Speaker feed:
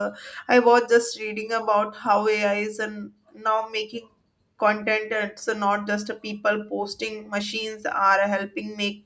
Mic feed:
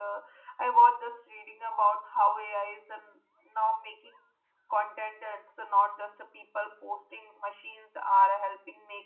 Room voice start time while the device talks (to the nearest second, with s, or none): none